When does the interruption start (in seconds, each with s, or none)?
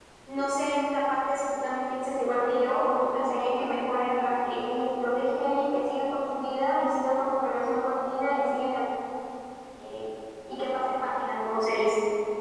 none